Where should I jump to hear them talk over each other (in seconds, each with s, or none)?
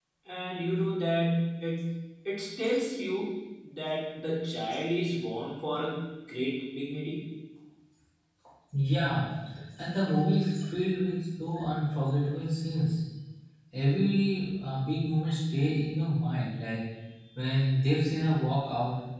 none